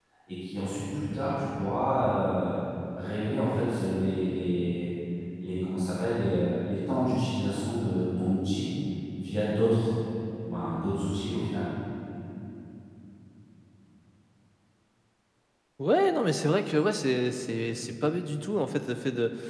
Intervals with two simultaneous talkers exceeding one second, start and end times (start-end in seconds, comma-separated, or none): none